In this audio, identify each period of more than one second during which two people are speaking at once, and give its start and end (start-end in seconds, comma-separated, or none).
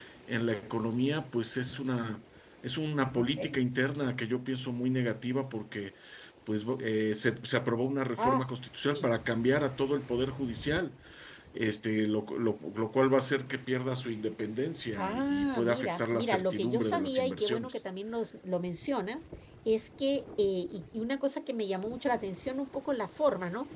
15.0-17.8